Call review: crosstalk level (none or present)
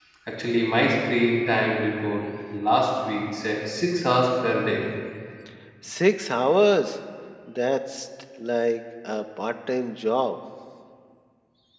none